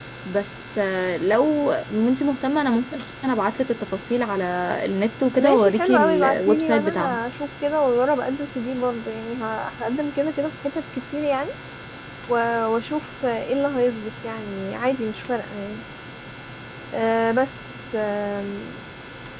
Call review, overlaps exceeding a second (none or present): present